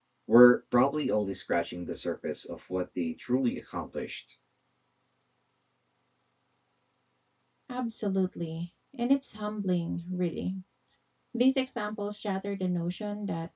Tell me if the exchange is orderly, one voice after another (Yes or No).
Yes